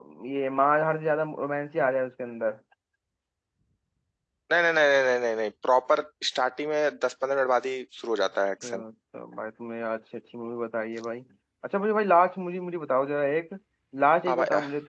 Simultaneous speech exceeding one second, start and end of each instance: none

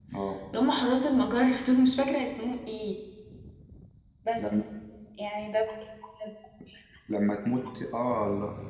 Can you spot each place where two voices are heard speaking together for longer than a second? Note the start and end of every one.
none

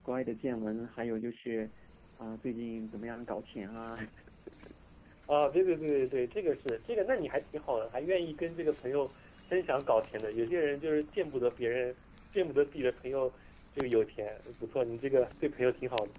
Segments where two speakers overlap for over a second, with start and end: none

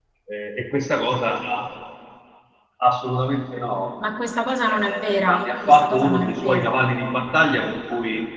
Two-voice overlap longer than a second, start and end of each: 4.7-6.7

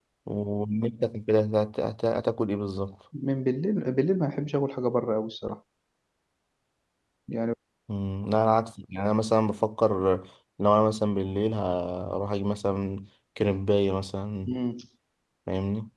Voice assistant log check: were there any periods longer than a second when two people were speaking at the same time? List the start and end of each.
none

